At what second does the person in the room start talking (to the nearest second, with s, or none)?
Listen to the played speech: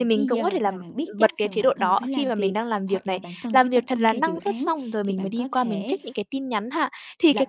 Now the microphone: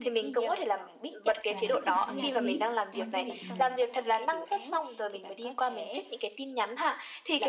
1 s